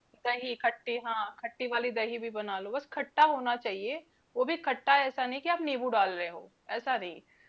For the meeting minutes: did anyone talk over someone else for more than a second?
No

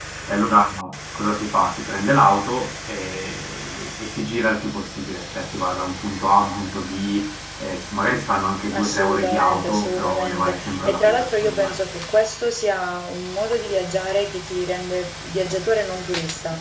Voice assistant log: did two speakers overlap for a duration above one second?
Yes, from 8.7 s

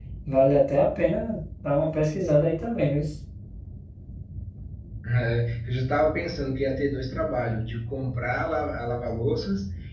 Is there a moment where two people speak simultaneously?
No

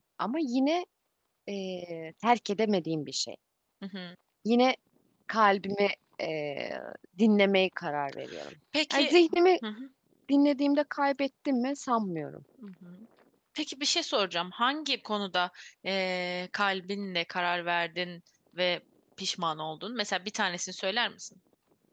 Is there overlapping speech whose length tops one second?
No

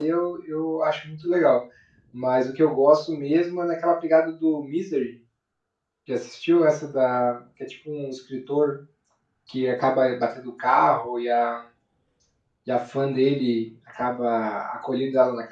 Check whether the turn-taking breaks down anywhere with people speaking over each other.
No

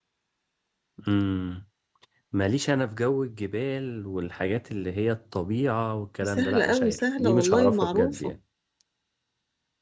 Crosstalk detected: Yes, from 6.2 s

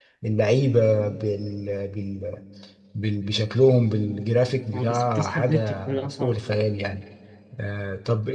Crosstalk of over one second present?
Yes, from 4.7 s

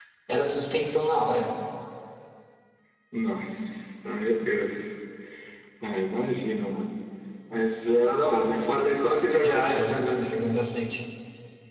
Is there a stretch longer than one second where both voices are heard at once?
No

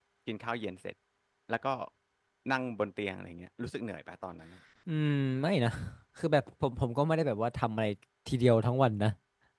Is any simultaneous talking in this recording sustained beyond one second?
No

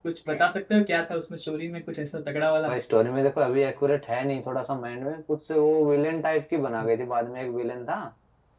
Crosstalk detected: No

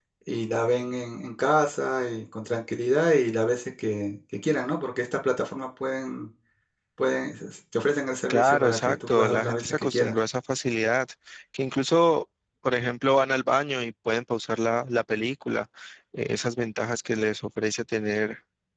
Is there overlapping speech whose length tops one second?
Yes, from 8.3 s

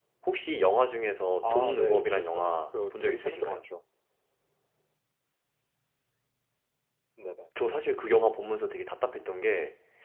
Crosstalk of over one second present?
Yes, from 1.4 s

